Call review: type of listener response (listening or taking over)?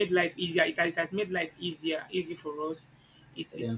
listening